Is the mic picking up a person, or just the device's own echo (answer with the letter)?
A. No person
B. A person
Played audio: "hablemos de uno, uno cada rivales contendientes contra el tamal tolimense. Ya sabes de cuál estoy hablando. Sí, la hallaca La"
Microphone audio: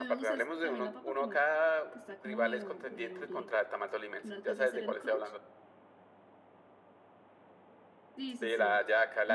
B